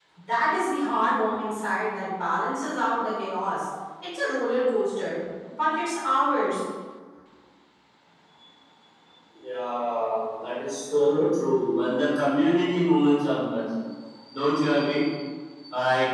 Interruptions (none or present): none